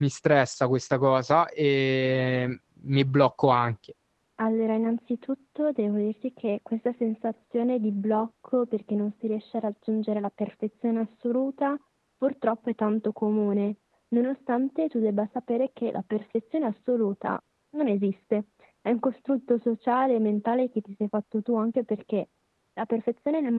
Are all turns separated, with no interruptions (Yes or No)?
Yes